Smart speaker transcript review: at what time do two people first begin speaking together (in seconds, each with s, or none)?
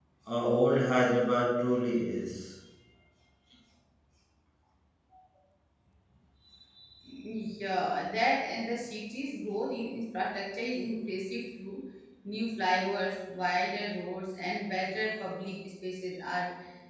none